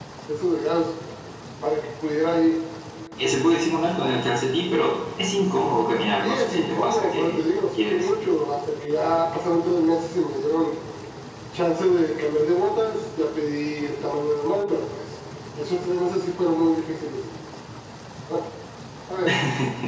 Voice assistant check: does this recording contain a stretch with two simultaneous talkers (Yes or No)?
Yes